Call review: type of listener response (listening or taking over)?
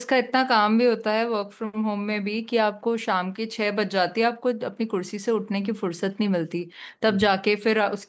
listening